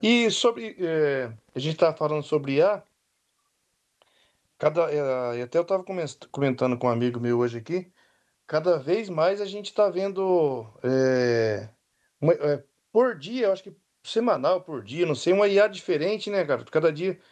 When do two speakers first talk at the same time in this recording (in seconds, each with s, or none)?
none